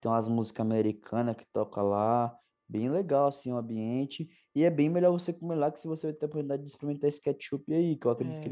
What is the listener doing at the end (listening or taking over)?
taking over